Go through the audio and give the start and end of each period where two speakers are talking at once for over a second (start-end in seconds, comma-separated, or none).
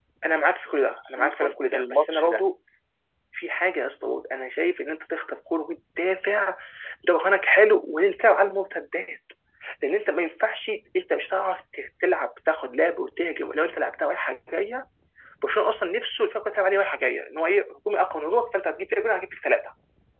0.8-2.4